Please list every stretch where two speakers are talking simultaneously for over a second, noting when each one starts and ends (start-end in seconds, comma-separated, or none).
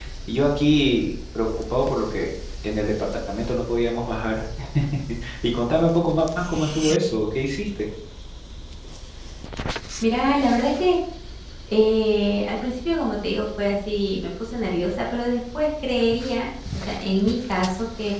none